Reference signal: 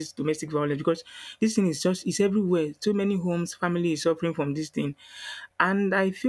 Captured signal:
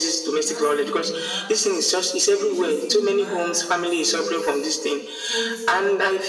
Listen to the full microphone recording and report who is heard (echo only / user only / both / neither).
both